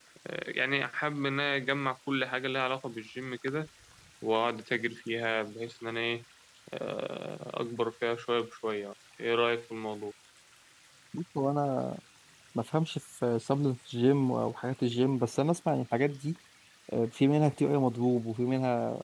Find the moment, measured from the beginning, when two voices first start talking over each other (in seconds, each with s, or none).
none